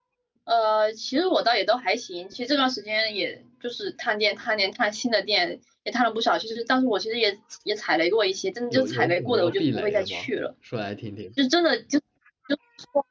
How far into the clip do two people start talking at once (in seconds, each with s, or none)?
8.7 s